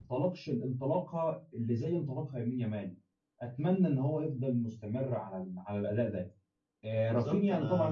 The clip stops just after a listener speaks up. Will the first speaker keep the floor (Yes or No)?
No